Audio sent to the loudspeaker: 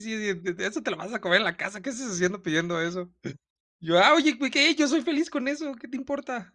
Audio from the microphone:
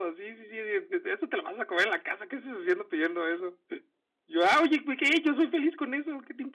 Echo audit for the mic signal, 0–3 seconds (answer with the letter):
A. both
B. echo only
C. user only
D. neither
B